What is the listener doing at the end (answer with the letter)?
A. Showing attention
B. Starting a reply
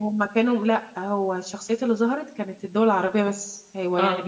A